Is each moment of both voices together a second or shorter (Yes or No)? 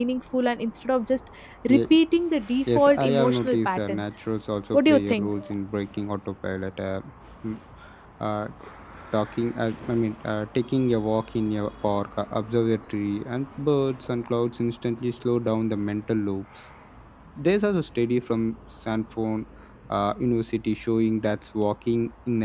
No